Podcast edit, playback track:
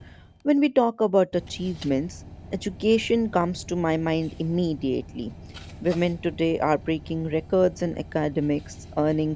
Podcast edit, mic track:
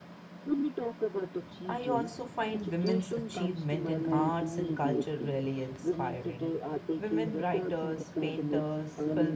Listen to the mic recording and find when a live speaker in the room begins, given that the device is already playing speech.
1.7 s

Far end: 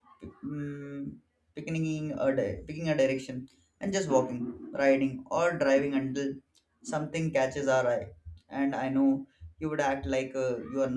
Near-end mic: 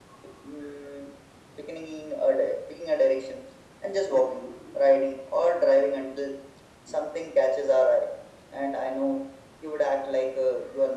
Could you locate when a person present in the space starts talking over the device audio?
none

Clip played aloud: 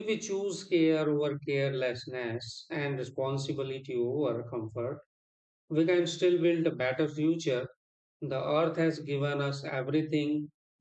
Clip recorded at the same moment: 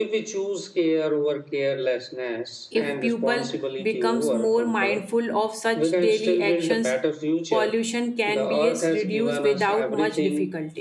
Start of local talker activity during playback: 2.7 s

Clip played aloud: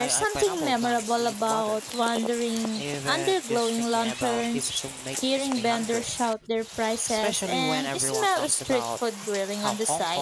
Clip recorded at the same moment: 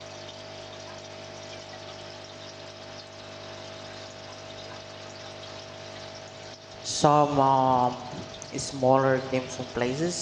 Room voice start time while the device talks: 6.8 s

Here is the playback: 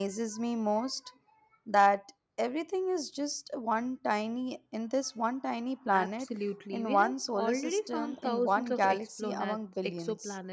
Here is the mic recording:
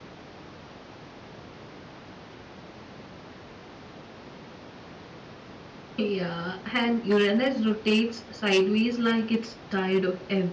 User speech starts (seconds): 6.0 s

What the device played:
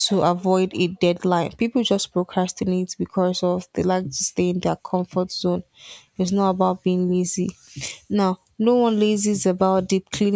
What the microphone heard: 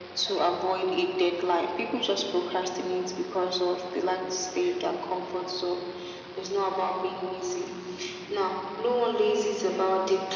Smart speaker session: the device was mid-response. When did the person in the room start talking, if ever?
none

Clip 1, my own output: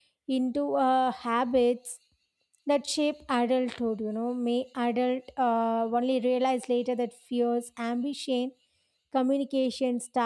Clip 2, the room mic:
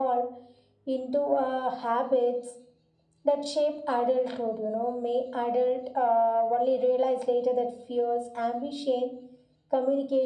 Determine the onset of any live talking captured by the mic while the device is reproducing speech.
none

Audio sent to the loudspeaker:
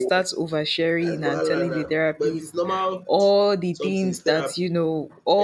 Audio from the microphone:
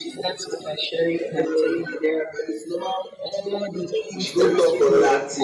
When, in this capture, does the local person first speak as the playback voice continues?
4.2 s

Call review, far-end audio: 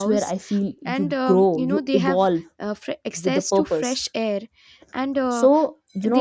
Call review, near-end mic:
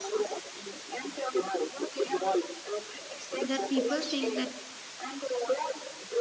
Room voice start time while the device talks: 3.4 s

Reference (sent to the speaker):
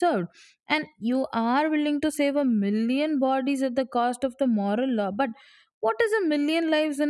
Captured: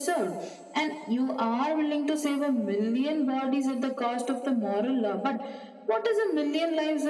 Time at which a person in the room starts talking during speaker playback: none

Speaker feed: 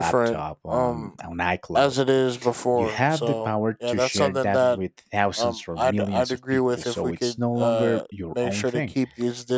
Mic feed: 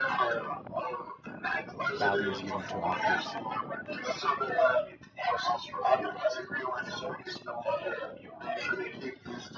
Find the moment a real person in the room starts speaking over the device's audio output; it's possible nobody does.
2.0 s

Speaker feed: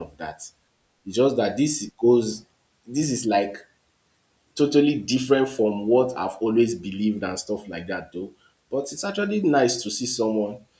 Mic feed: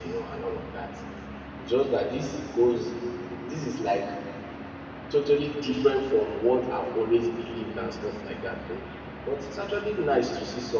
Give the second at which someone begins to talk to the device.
none

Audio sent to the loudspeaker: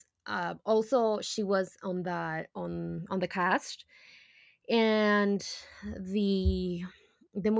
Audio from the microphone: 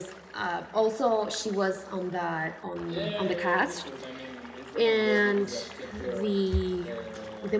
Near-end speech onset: 2.9 s

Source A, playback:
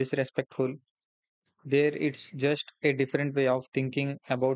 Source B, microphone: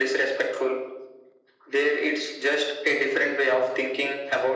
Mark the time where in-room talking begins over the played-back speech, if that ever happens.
none

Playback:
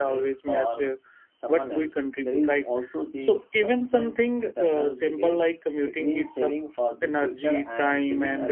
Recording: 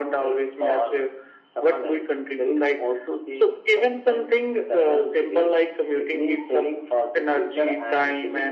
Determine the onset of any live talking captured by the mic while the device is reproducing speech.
none

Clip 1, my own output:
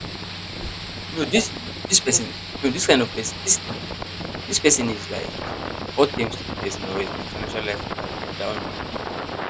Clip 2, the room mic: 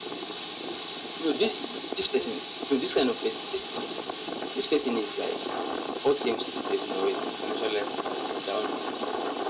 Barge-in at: none

